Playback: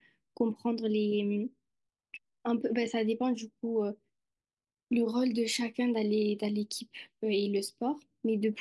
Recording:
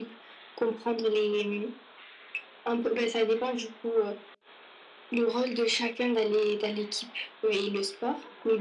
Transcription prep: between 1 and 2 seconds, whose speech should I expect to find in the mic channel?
echo only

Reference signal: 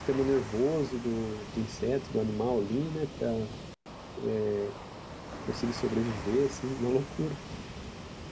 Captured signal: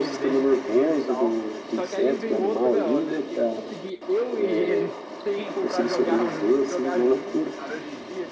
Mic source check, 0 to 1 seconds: both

